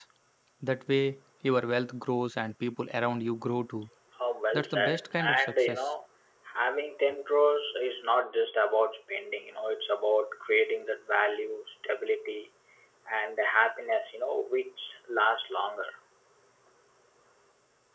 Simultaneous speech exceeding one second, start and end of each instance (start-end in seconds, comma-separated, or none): 4.5-5.8